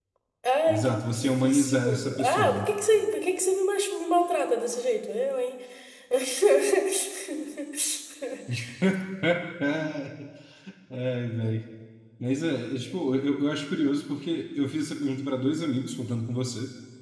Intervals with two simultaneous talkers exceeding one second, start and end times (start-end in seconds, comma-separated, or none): 0.7-2.7